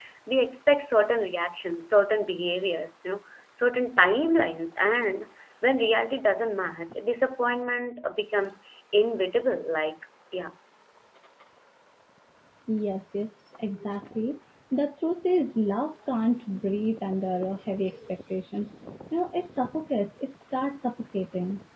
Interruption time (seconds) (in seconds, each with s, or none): none